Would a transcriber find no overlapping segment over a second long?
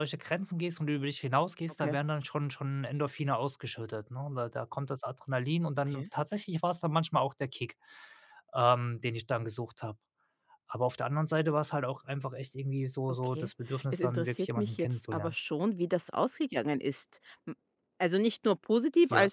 No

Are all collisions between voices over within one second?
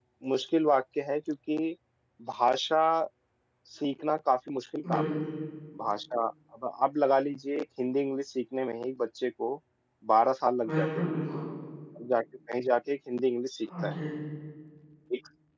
Yes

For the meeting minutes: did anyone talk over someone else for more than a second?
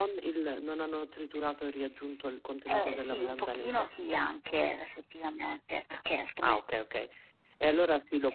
Yes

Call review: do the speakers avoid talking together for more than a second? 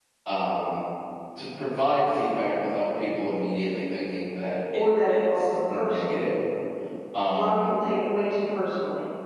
No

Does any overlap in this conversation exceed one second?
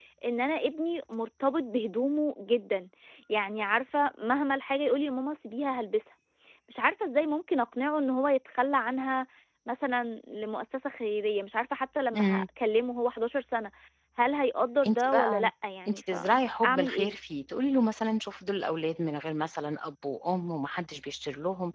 Yes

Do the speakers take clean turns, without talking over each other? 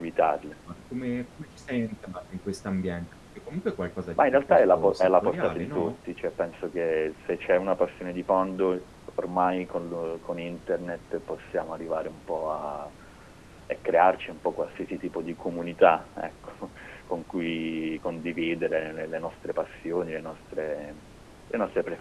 No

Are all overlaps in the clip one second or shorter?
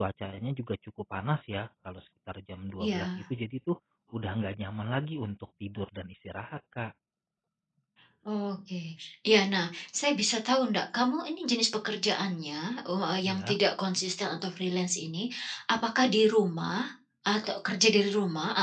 Yes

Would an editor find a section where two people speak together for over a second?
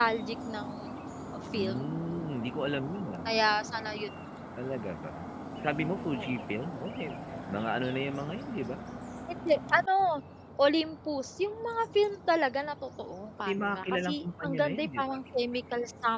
Yes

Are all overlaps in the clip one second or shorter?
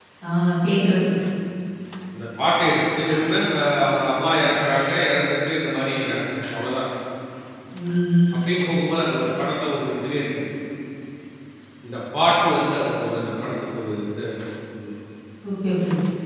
Yes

